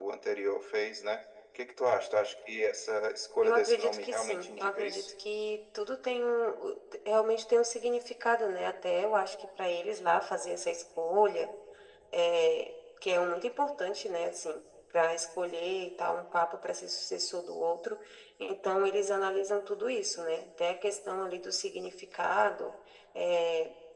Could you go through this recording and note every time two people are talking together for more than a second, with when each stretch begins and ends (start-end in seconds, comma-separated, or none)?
3.4-5.1